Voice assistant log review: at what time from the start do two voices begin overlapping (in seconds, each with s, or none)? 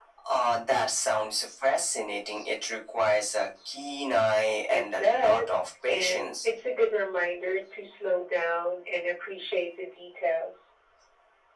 4.7 s